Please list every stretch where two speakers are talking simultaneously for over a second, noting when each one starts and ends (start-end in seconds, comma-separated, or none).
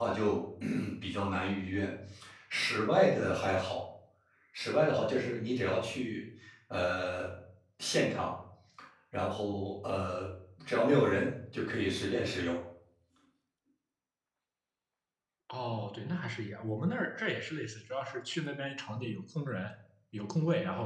none